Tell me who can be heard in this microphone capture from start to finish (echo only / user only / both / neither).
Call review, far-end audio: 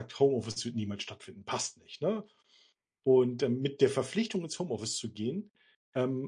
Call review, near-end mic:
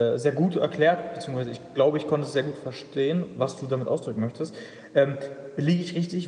user only